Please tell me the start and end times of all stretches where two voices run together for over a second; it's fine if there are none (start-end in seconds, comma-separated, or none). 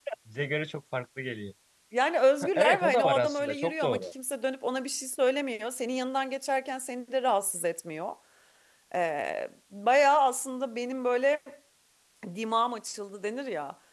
2.4-4.1